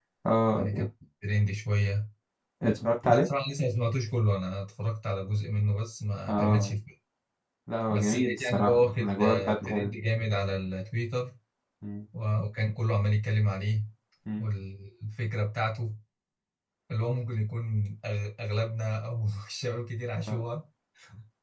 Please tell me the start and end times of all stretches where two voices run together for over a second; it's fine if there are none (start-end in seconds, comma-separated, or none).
7.9-9.9